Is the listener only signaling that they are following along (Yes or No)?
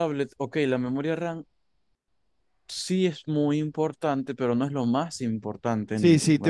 No